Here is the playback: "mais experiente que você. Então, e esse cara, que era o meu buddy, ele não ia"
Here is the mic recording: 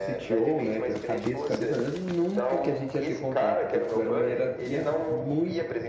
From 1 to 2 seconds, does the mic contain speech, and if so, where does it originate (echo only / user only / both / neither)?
both